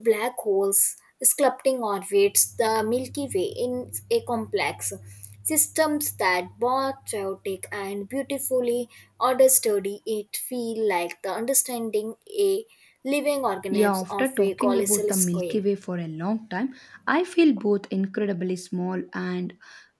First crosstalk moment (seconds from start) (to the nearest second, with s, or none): 14 s